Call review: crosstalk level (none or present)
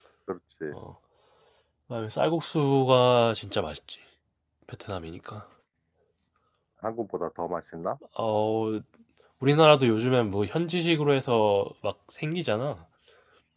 none